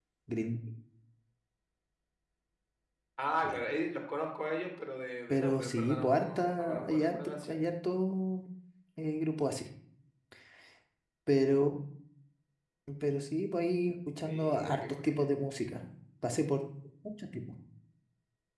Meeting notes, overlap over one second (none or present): present